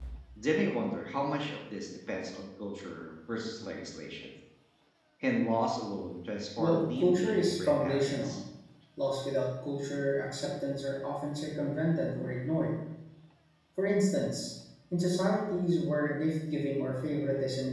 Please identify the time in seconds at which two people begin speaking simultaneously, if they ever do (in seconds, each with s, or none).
6.6 s